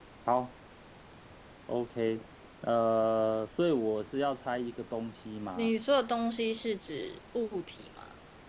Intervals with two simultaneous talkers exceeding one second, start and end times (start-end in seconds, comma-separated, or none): none